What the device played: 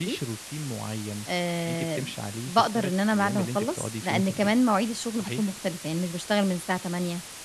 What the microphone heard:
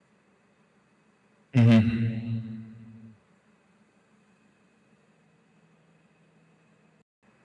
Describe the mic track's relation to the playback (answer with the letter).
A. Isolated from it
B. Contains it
A